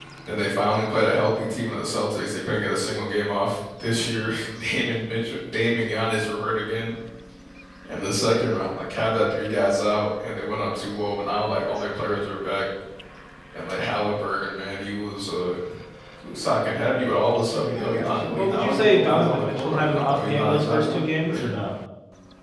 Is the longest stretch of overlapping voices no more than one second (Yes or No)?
No